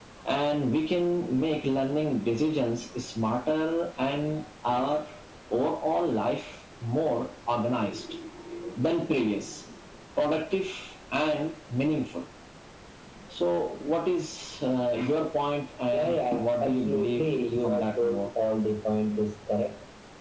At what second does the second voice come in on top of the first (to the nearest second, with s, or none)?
16 s